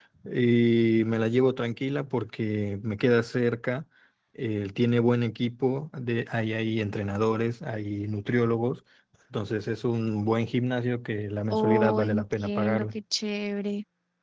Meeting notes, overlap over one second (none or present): present